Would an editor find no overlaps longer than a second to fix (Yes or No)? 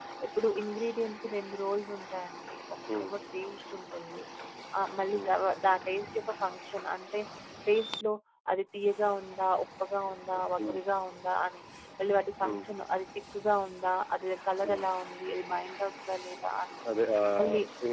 Yes